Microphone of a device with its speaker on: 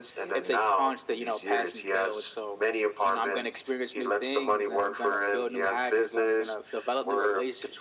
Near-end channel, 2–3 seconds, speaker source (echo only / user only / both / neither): echo only